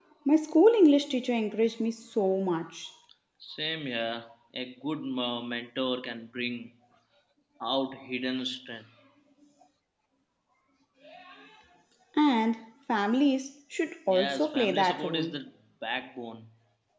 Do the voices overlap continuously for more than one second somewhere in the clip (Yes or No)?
Yes